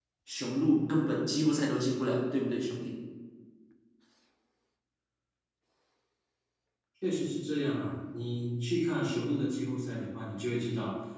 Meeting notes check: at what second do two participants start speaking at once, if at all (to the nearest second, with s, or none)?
none